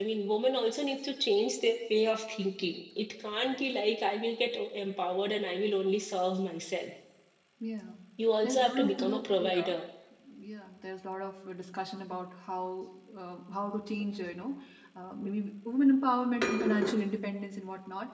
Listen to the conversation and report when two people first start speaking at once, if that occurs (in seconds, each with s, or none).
8.4 s